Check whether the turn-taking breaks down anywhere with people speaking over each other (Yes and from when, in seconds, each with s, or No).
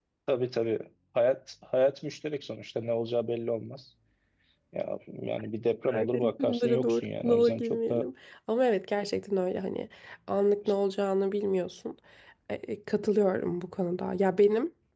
Yes, from 5.8 s